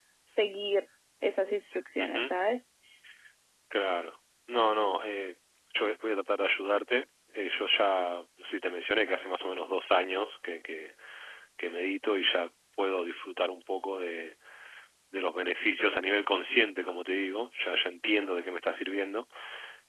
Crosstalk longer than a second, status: none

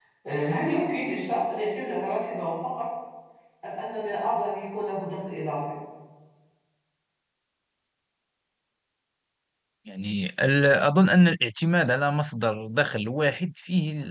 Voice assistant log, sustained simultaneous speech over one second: none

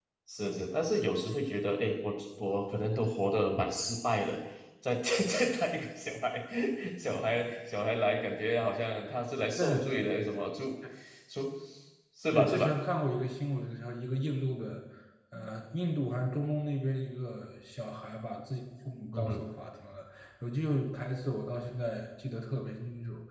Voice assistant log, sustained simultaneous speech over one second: none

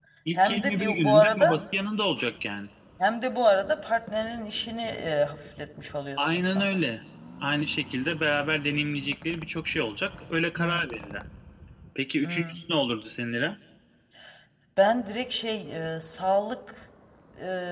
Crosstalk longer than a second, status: present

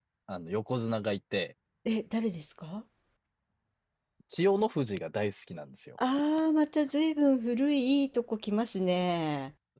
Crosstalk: none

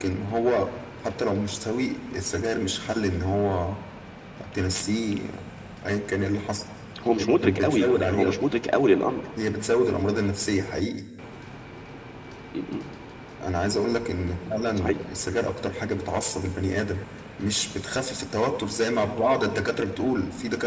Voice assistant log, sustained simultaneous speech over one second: present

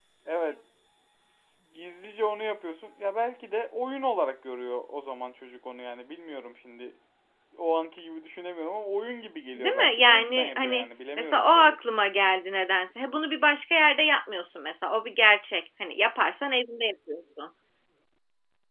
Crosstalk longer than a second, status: present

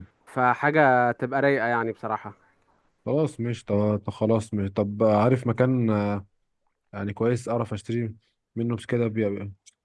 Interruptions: none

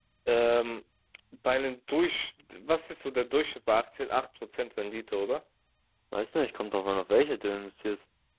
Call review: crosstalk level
none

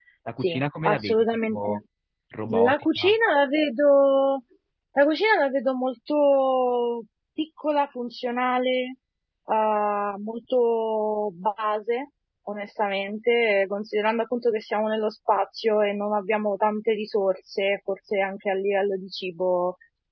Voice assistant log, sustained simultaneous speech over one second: present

